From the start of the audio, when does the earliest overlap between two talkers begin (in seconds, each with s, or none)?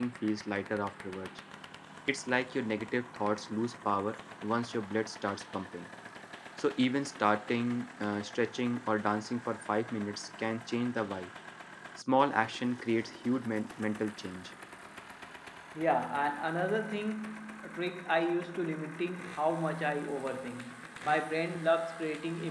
none